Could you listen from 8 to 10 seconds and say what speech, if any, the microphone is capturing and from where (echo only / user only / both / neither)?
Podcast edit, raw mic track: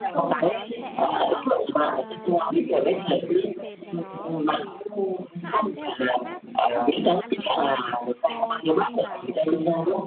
both